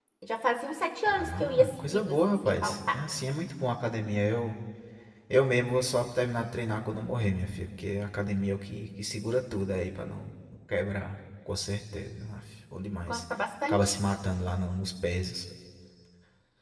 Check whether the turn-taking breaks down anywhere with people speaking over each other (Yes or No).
Yes